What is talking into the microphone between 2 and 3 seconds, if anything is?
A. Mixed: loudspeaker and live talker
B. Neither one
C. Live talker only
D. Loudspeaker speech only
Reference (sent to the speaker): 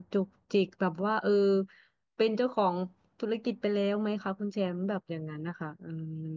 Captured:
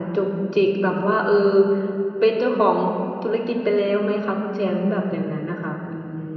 D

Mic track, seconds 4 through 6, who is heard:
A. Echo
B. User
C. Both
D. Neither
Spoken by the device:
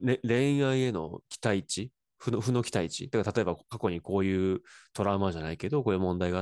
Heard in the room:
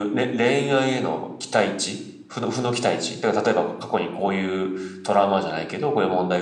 A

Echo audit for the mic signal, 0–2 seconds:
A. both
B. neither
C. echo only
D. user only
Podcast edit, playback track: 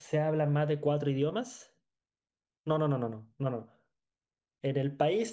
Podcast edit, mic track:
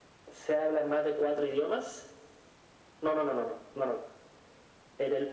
C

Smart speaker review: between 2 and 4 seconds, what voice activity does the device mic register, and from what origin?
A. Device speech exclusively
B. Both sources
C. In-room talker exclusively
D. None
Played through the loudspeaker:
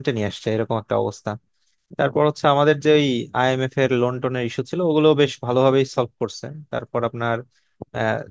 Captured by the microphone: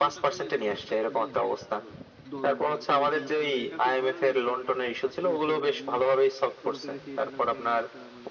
B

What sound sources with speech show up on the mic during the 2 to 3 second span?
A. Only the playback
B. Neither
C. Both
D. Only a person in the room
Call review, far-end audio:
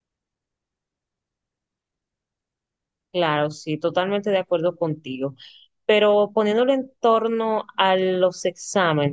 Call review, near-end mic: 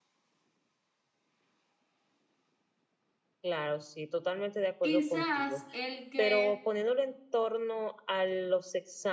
B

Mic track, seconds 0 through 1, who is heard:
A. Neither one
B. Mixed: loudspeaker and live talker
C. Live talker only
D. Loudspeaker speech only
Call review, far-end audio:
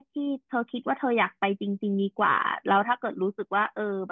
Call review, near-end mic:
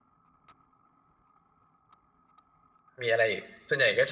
A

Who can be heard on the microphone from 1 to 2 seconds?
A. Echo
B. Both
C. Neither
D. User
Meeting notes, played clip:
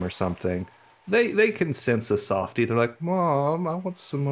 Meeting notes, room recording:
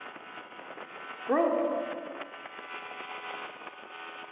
D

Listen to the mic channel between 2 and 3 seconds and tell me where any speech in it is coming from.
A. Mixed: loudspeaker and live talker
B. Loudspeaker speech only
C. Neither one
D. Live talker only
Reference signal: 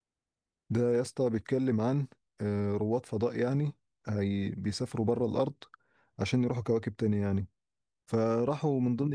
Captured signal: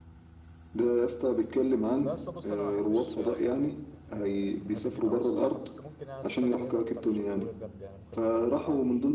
A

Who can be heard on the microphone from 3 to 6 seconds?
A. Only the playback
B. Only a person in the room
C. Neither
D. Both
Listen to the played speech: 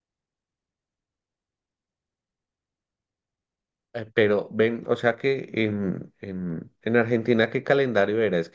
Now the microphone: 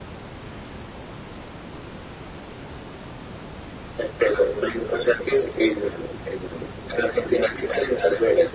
A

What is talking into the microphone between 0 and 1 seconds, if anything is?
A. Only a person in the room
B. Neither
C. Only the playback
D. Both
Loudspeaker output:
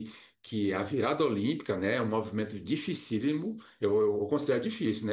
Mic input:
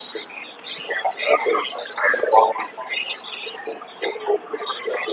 C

